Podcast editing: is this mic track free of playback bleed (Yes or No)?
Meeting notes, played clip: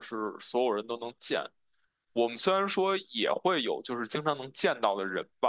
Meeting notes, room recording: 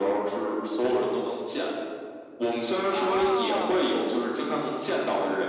No